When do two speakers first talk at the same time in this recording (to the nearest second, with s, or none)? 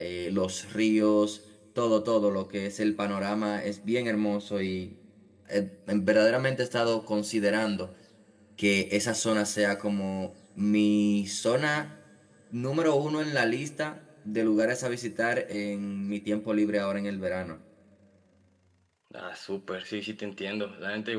none